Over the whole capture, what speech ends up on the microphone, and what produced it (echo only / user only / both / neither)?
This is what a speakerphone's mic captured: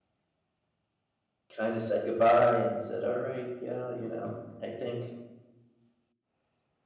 user only